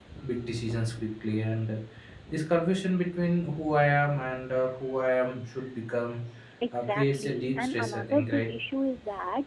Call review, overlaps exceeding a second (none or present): present